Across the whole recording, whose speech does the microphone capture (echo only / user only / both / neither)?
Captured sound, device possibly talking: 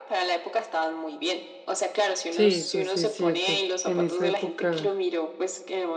both